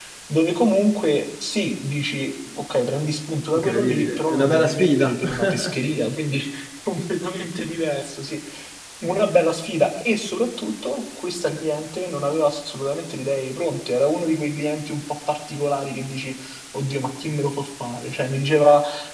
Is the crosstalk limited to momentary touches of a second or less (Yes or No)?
No